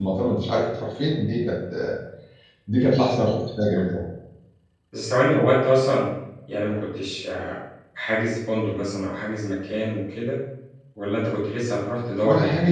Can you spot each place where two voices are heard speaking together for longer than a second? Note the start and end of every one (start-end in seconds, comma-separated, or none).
none